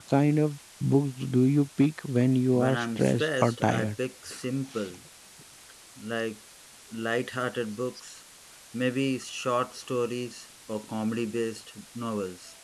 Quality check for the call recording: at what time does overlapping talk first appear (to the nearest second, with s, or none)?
3 s